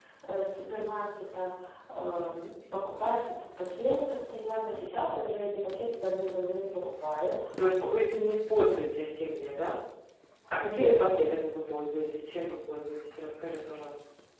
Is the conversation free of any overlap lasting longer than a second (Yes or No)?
Yes